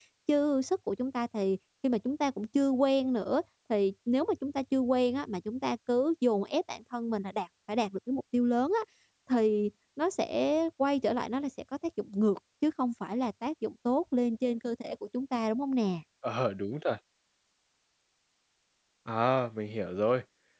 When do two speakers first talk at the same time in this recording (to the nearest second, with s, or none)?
none